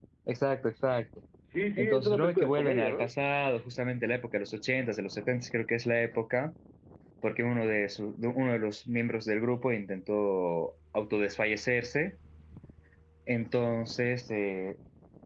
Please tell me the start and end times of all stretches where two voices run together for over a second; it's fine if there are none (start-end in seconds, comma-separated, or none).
1.8-3.1